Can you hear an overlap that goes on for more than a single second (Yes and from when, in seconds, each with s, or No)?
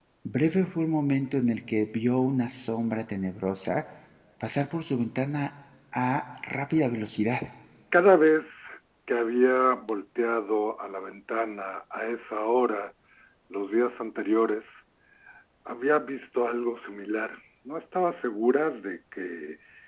No